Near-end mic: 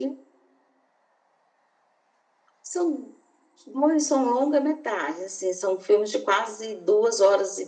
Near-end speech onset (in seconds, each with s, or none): none